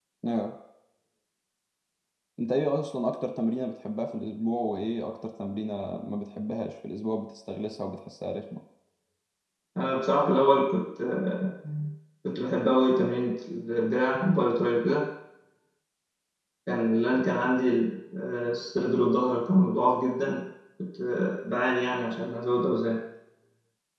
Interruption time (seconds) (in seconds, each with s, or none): none